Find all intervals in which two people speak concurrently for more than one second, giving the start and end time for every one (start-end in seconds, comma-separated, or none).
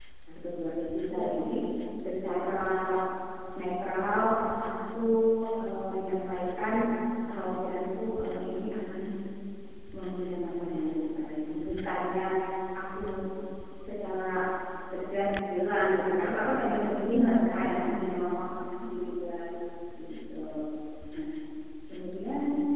17.1-18.3